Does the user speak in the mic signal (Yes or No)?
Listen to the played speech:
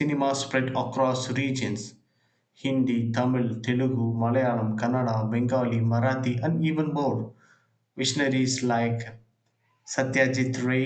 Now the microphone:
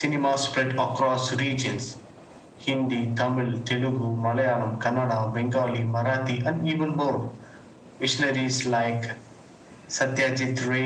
No